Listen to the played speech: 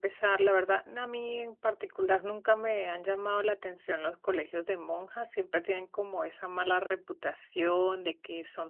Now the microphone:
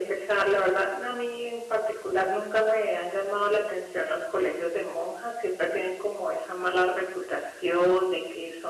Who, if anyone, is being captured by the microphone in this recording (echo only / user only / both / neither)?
echo only